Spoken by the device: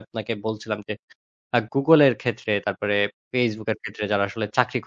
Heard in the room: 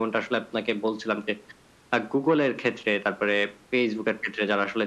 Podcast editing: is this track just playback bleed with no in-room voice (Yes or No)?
Yes